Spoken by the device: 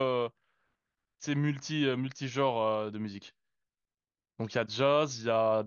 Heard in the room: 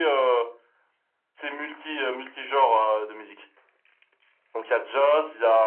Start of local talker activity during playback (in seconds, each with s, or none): none